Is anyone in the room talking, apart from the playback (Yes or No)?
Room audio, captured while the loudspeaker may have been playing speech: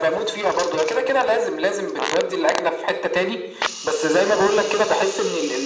No